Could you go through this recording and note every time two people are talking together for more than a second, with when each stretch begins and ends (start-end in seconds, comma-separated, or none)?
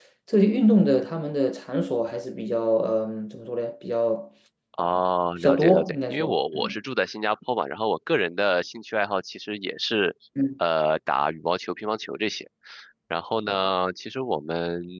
5.4-6.8